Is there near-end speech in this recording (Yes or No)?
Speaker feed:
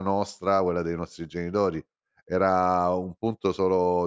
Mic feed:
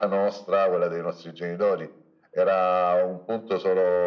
No